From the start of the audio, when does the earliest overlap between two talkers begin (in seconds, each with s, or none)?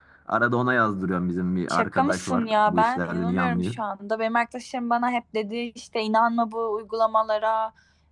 1.7 s